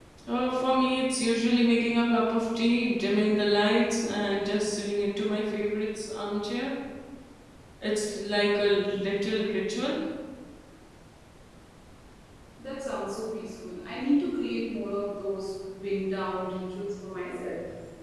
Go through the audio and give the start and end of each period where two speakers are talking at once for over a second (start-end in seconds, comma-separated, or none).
none